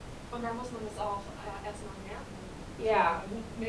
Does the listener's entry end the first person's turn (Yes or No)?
Yes